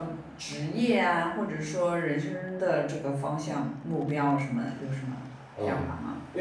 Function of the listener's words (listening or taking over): taking over